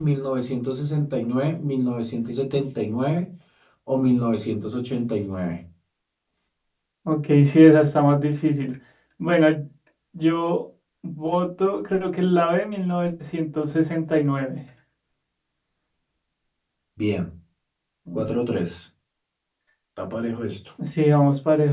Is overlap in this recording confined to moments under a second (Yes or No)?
Yes